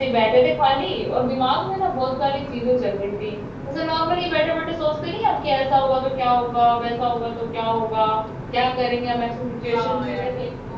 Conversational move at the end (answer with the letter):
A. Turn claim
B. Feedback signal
A